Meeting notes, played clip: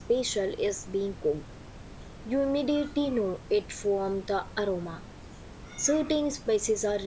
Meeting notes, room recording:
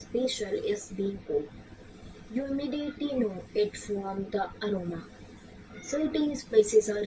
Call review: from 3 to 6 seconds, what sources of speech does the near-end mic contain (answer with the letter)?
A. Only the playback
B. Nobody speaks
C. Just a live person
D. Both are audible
A